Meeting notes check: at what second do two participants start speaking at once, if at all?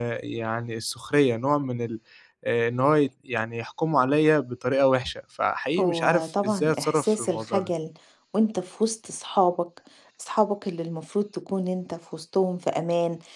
5.8 s

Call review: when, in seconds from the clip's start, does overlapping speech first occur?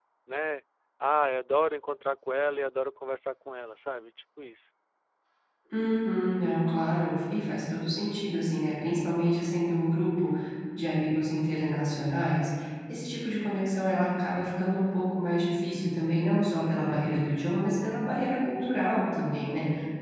none

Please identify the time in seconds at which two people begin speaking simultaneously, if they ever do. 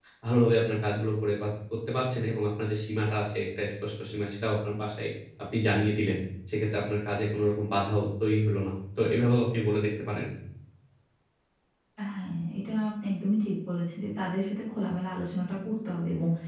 none

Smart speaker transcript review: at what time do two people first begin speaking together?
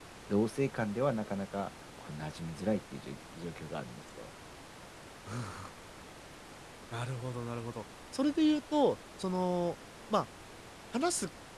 none

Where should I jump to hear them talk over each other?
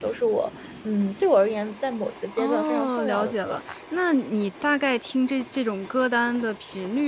2.4 s

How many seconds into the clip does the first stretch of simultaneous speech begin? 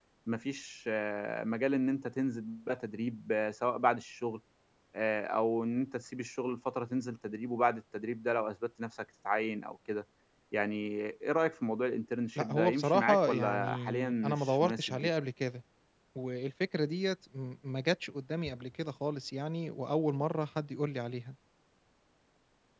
12.3 s

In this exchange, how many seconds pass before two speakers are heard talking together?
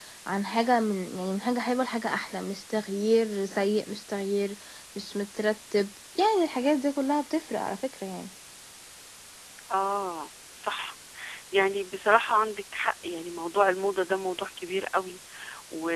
none

